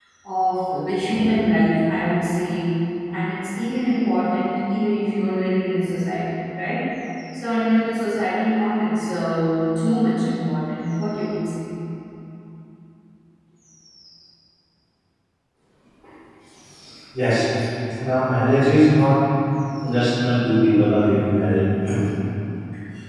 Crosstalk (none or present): none